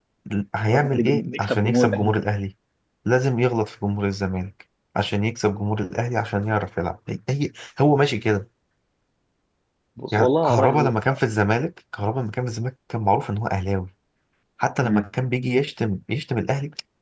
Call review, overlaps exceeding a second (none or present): present